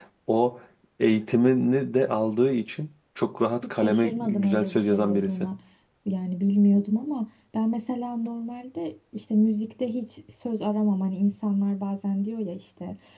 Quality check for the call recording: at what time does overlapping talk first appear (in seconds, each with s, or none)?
3.6 s